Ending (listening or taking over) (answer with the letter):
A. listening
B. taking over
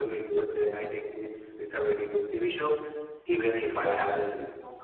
A